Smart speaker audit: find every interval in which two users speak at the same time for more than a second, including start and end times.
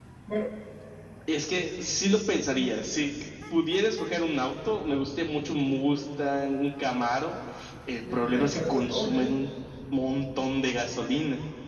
8.1-9.4

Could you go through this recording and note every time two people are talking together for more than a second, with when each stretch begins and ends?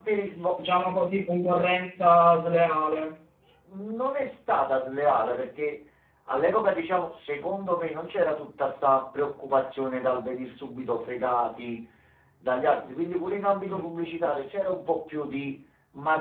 none

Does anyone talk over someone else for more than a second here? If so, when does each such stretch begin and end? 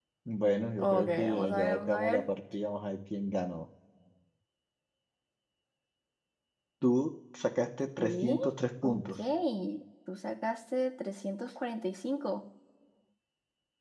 0.8-2.2

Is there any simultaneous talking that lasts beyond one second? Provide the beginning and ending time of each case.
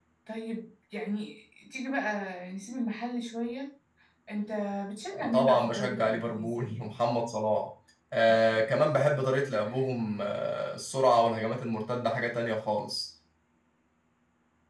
5.1-6.9

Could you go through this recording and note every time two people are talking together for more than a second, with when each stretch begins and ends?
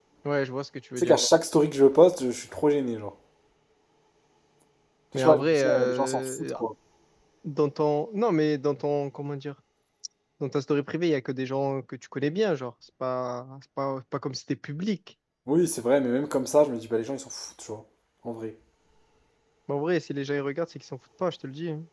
5.2-6.5

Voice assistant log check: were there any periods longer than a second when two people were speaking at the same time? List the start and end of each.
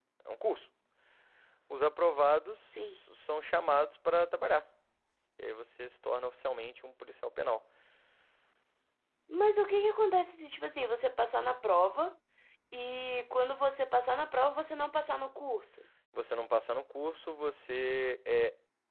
none

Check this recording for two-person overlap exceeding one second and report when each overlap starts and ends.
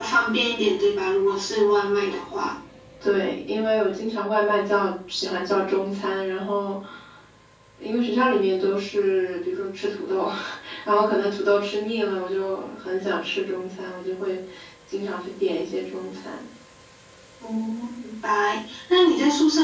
none

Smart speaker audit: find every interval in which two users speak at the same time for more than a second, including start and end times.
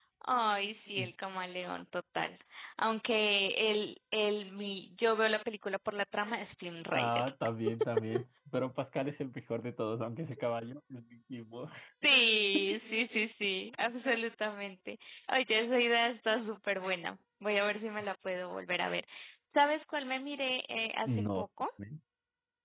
none

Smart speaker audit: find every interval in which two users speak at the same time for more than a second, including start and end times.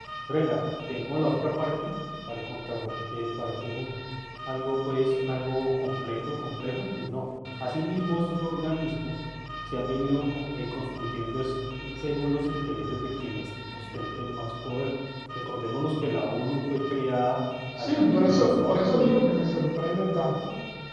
17.8-19.2

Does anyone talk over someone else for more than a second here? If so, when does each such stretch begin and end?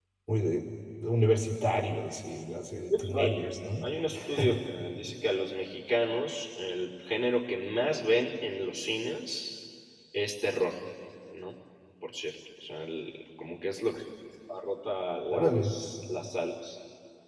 none

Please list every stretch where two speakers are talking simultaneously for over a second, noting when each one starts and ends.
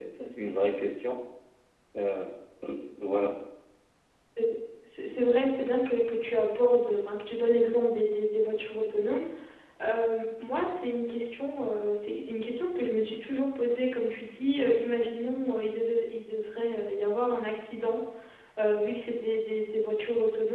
none

